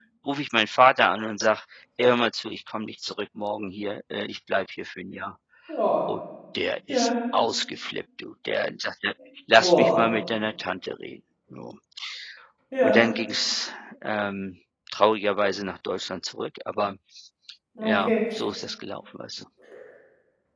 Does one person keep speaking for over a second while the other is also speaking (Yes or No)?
No